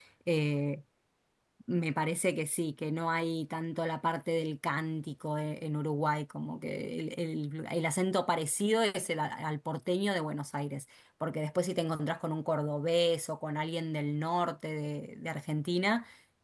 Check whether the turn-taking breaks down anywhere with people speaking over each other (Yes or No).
No